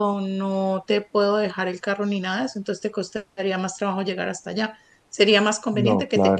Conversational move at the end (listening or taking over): listening